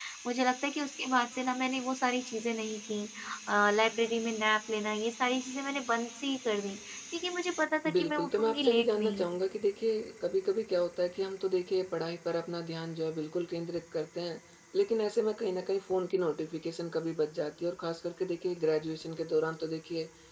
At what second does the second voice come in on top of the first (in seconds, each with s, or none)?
7.8 s